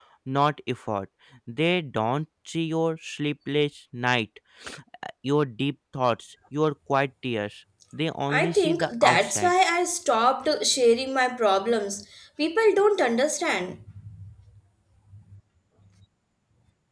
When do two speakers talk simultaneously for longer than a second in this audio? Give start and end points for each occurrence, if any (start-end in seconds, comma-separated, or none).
8.3-9.6